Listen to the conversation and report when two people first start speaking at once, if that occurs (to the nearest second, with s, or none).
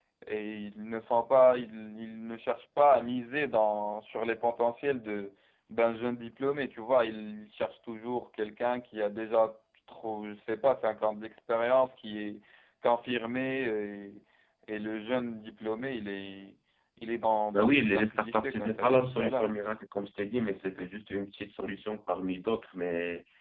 18 s